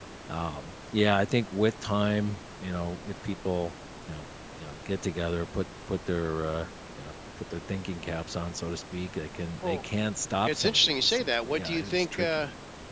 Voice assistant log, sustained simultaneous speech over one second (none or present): present